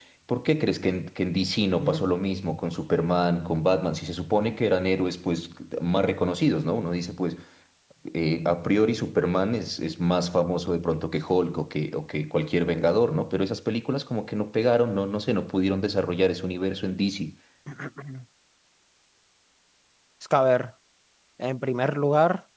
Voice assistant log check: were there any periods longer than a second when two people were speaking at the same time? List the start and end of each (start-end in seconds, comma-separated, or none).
none